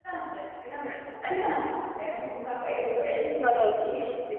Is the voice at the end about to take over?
Yes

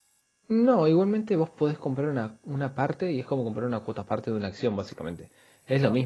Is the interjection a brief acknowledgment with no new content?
Yes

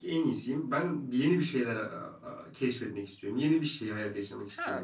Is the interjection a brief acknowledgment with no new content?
No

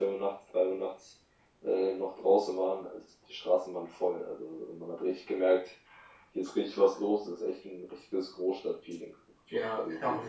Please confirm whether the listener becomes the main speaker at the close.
Yes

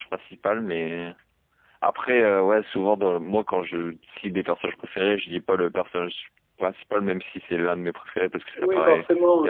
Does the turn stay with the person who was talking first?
No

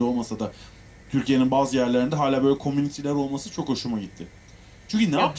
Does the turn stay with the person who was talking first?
Yes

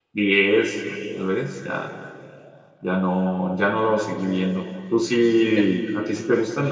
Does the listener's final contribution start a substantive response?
No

